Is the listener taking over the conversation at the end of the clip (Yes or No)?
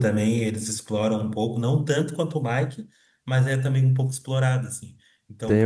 Yes